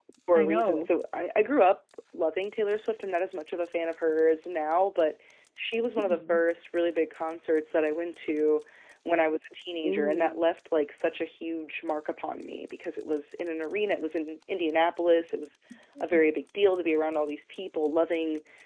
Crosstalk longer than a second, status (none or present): none